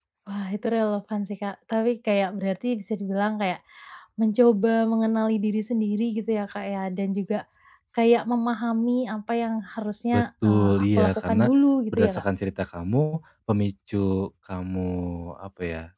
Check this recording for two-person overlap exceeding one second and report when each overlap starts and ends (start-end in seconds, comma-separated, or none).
10.1-11.5